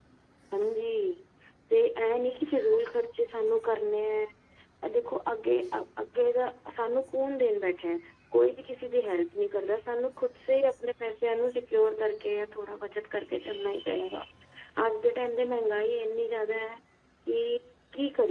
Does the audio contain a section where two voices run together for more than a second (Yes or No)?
No